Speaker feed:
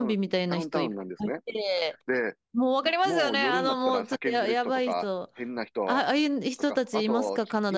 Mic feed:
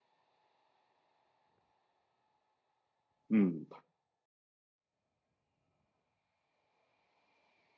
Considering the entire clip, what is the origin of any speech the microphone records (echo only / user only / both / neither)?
user only